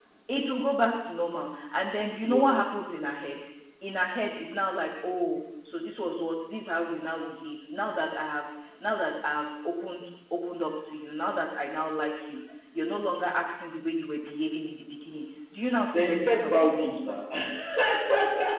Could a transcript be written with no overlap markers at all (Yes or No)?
No